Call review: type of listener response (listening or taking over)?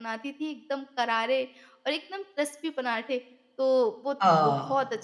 listening